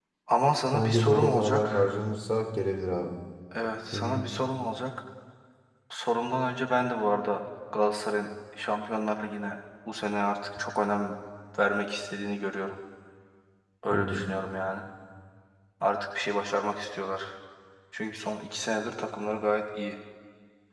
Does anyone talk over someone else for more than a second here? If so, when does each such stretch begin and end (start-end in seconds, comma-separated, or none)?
0.7-1.9